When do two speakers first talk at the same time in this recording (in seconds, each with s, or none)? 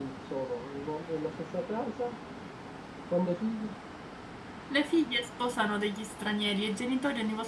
none